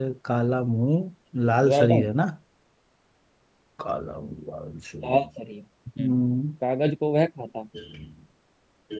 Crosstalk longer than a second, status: none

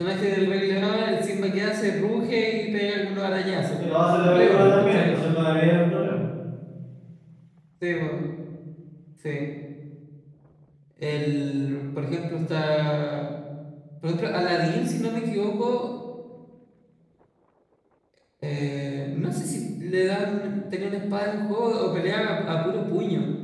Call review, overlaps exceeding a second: present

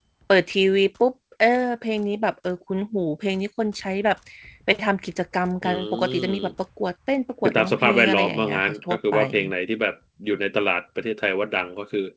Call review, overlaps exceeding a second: present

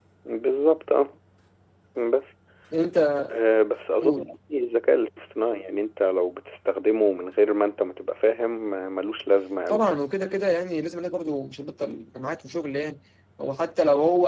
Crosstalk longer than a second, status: none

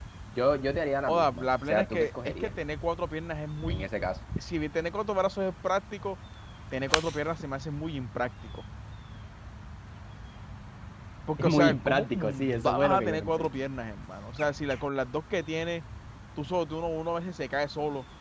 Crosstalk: present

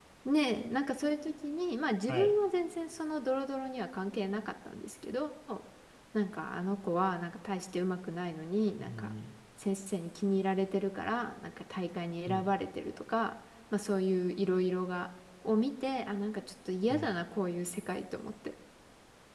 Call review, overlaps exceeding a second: none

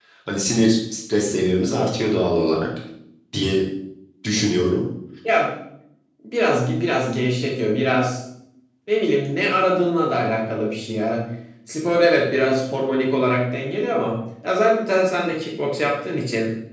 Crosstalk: none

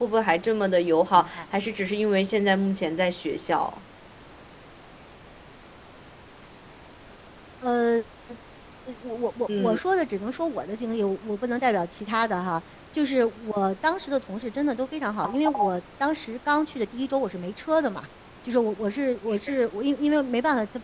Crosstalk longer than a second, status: none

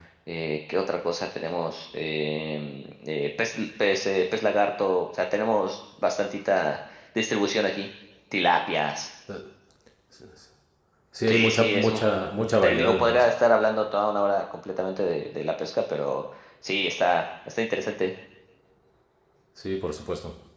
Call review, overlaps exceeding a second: present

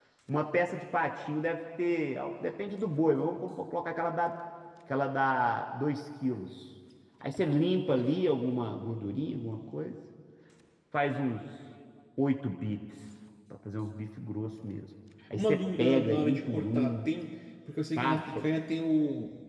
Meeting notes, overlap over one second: present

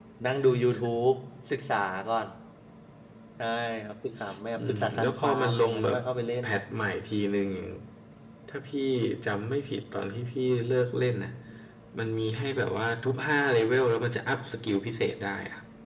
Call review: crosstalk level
present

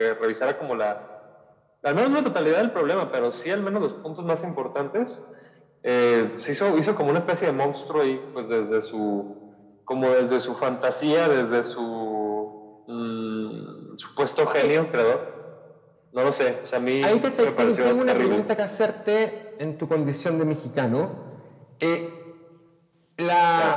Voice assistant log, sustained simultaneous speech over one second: present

